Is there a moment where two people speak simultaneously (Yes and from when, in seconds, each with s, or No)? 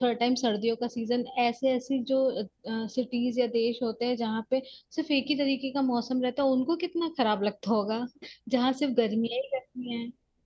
No